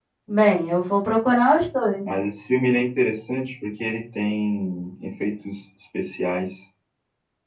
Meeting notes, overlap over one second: none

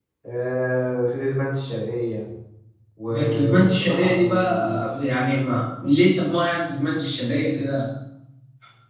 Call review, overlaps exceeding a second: present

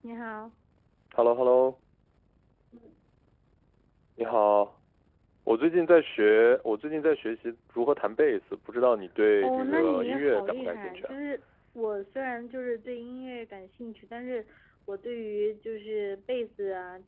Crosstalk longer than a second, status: present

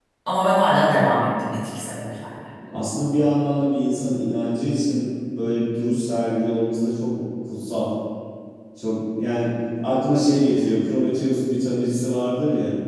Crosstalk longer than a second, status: none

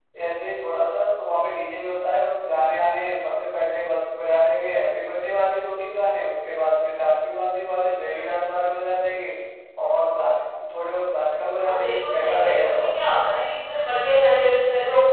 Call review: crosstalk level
present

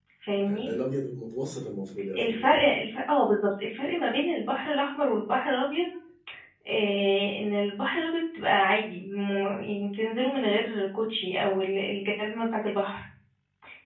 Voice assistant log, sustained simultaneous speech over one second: none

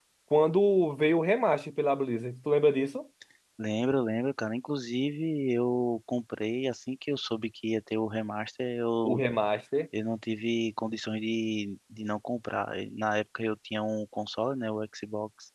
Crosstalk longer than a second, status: none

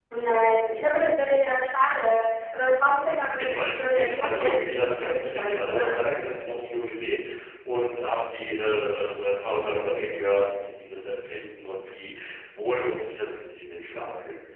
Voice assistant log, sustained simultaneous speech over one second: present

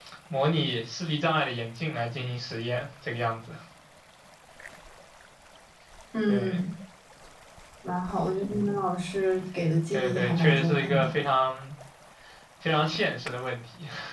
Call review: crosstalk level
present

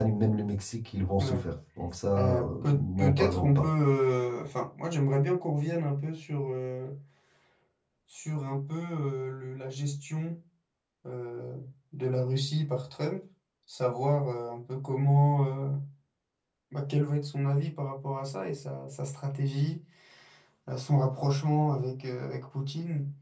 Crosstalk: present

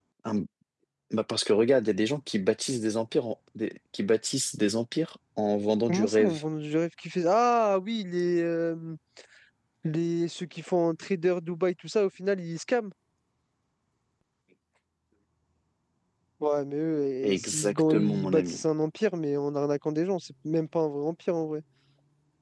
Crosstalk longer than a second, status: present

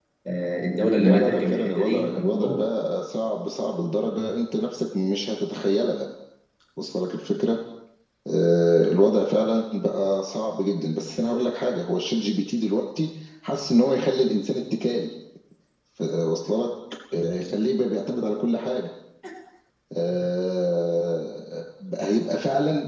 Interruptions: present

